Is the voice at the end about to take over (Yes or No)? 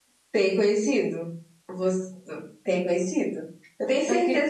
No